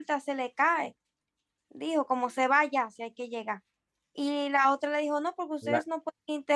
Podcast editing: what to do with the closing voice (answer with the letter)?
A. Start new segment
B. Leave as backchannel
B